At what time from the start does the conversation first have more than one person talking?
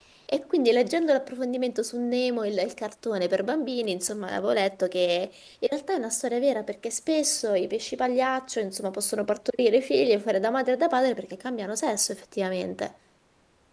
none

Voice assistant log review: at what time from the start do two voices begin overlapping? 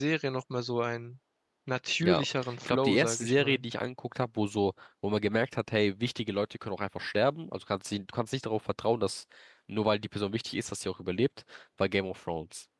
2 s

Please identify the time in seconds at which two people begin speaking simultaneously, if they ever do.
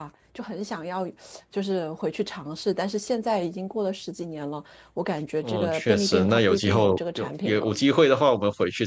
5 s

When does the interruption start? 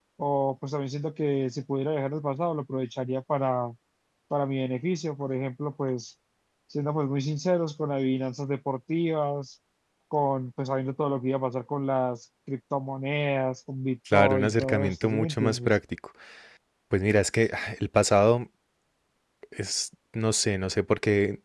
14 s

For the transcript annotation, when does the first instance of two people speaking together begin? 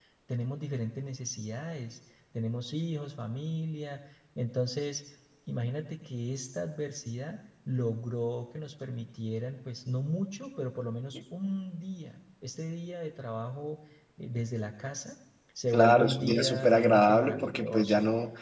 16 s

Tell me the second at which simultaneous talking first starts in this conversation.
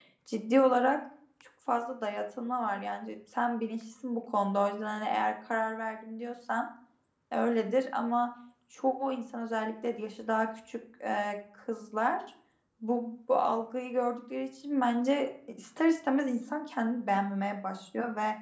none

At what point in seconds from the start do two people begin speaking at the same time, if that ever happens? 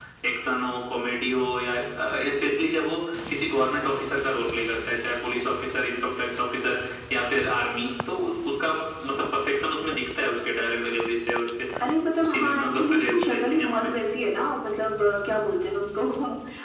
12 s

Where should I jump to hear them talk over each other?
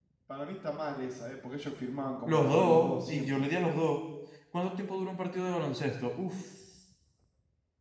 2 s

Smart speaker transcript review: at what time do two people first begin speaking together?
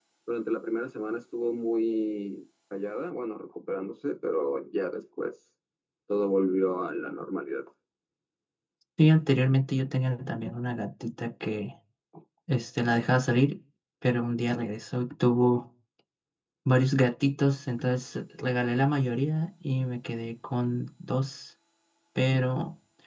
none

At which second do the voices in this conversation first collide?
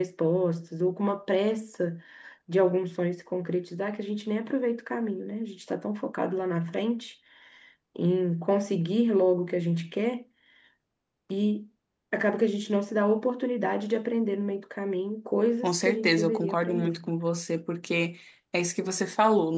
16 s

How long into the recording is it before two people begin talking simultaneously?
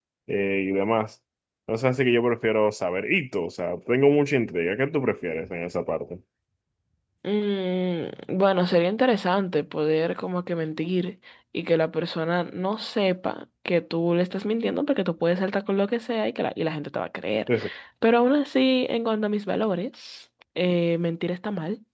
none

